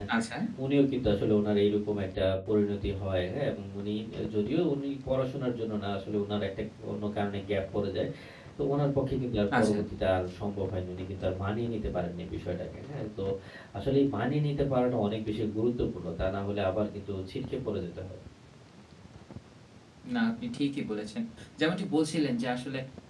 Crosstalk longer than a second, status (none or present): none